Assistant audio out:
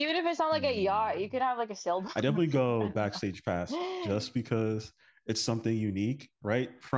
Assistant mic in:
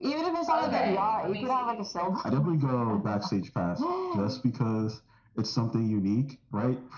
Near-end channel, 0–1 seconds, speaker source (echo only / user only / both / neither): both